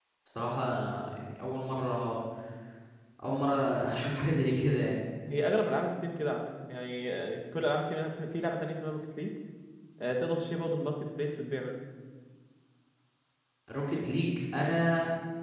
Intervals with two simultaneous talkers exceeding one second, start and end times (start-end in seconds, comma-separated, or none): none